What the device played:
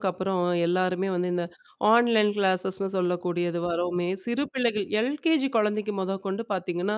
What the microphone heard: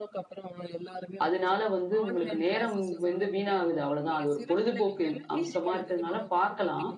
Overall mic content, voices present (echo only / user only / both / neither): both